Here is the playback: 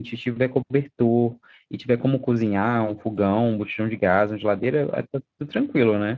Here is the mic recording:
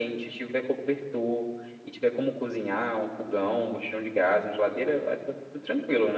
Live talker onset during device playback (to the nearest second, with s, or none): none